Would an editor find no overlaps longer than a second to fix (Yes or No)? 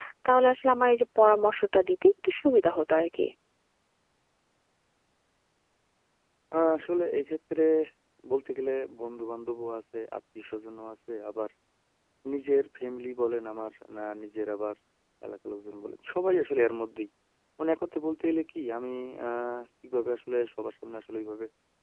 Yes